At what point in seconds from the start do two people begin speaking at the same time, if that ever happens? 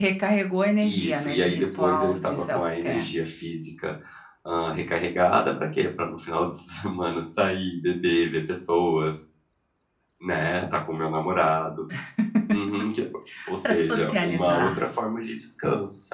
0.8 s

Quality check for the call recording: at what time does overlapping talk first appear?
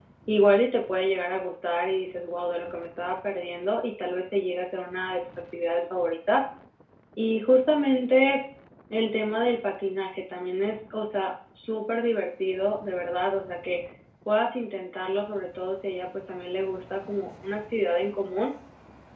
none

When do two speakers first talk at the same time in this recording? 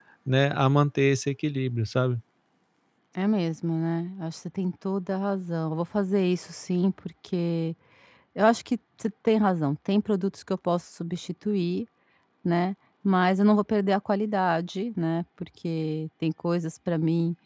none

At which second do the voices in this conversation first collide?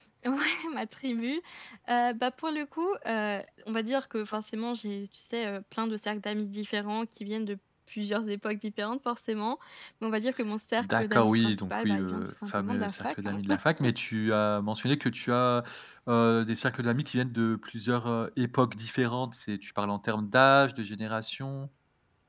10.8 s

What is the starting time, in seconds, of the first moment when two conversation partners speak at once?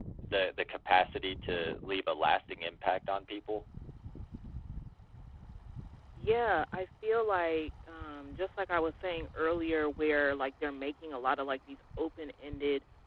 none

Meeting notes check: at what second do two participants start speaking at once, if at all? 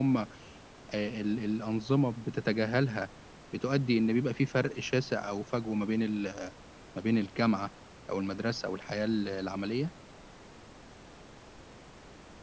none

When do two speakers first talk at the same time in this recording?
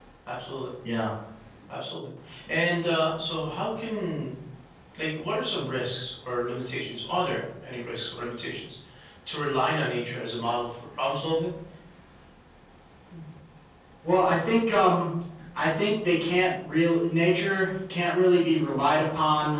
none

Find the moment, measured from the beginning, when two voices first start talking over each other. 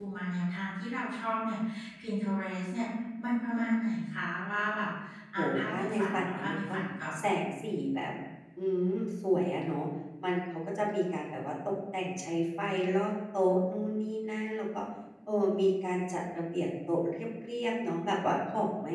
5.4 s

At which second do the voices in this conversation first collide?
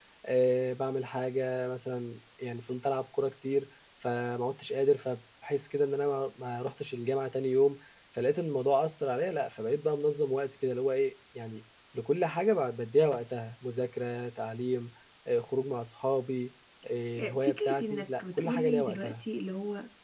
17.1 s

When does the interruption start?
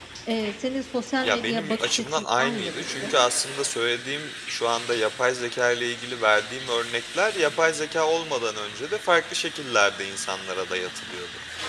1.2 s

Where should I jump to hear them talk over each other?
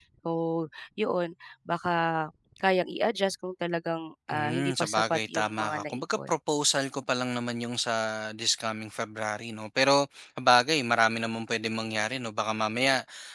4.3 s

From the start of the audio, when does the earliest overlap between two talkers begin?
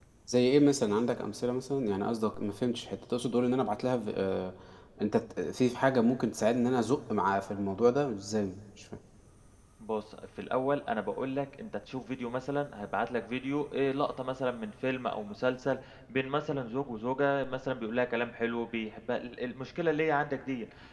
none

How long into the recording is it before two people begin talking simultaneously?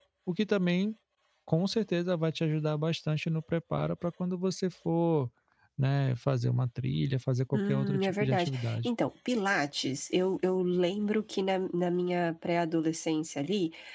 7.5 s

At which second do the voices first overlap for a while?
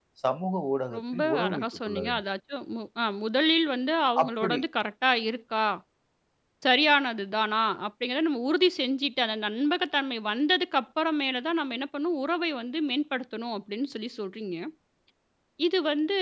0.9 s

